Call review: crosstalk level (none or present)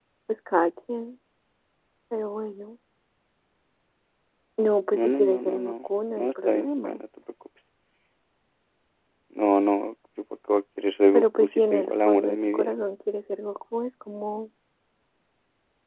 present